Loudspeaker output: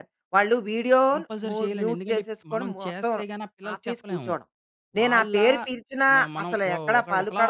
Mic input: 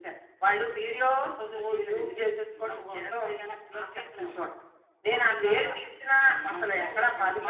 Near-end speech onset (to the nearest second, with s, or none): none